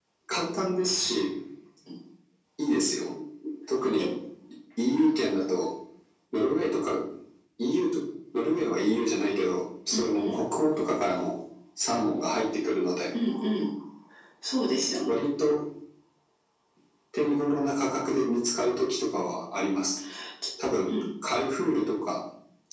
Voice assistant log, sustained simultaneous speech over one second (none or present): none